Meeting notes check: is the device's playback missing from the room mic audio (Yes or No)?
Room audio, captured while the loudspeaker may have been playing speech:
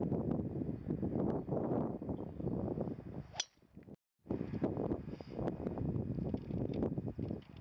Yes